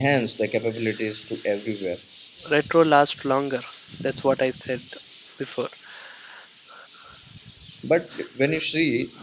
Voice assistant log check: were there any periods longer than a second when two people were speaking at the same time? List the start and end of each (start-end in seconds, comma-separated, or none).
none